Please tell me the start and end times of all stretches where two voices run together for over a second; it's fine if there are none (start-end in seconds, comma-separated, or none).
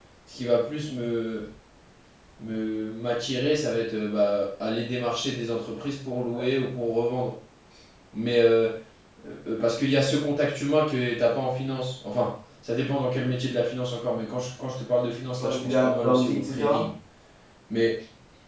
15.4-16.9